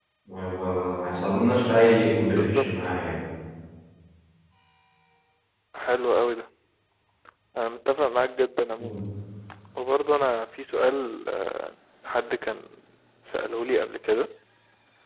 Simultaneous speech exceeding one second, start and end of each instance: none

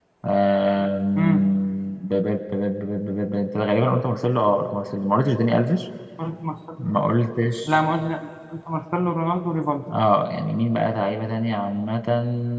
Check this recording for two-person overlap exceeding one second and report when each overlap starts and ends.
none

